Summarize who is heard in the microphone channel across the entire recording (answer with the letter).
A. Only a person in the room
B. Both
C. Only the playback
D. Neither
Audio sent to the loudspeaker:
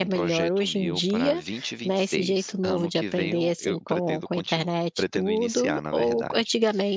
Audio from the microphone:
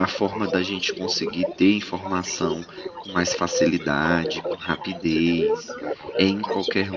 B